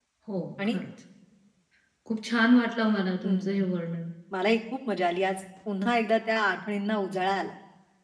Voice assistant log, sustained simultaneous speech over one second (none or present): none